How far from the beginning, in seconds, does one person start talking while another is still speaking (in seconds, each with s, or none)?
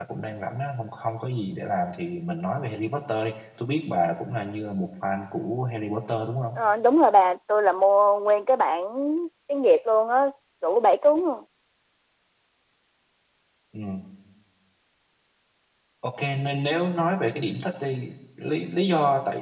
none